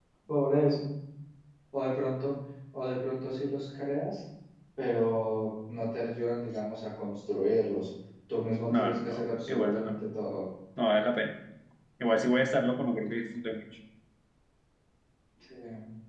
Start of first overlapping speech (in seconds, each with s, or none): 8.7 s